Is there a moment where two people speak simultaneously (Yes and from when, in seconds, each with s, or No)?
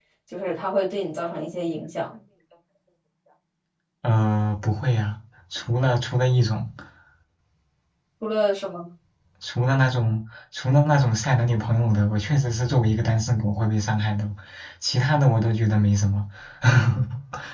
No